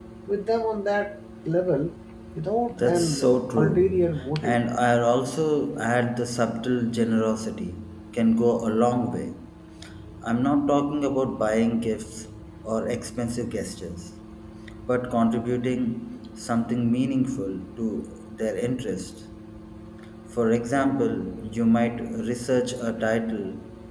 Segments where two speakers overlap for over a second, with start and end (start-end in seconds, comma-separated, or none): 2.7-4.6